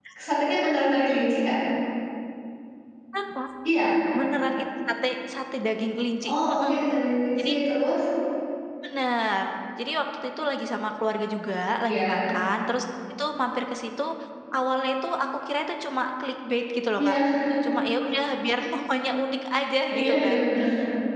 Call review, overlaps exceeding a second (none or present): none